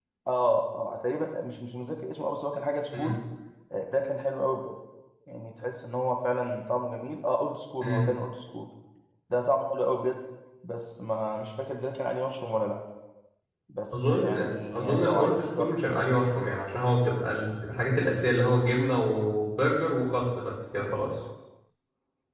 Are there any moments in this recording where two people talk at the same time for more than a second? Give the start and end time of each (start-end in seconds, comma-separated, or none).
14.1-15.6